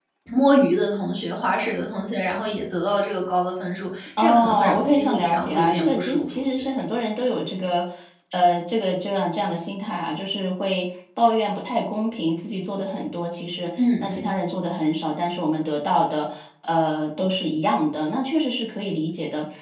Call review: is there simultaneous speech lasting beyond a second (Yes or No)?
Yes